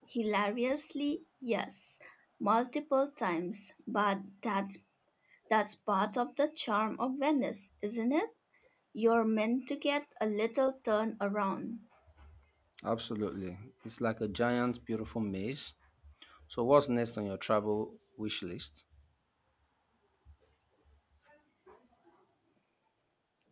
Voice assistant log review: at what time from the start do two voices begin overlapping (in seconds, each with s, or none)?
none